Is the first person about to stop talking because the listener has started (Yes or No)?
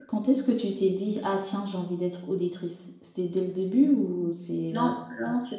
Yes